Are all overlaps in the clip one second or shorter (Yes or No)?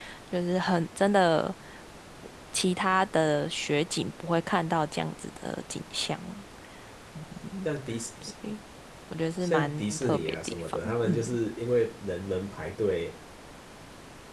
No